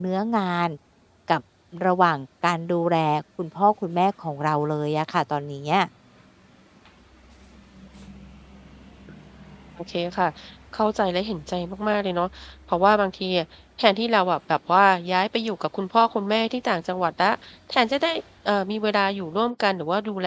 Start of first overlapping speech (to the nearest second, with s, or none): none